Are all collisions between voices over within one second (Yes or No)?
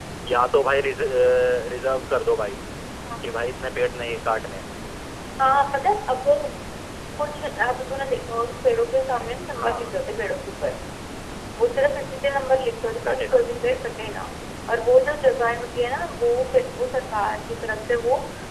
Yes